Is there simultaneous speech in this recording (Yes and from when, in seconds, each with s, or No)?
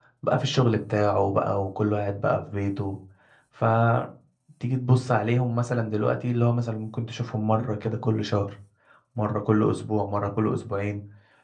No